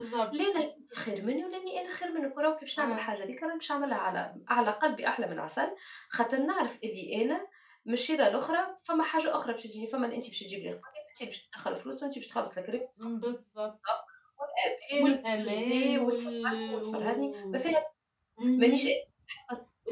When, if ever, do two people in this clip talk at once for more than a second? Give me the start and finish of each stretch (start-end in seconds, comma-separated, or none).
15.0-17.6